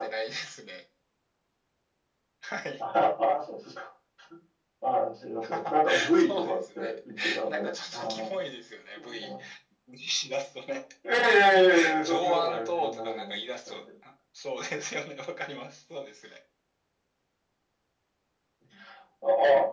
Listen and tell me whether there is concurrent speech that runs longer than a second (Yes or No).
Yes